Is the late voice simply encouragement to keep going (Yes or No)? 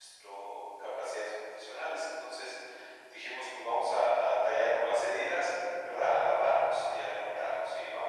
Yes